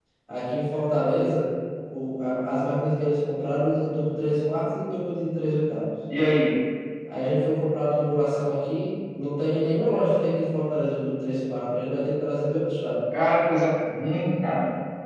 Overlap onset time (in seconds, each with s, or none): none